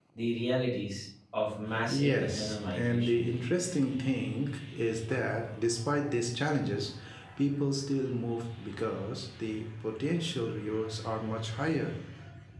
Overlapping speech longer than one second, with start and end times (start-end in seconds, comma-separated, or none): 1.9-3.3